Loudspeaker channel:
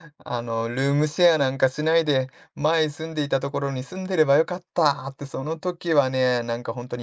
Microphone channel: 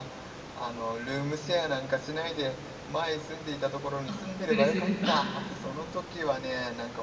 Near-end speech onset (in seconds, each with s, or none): 4.0 s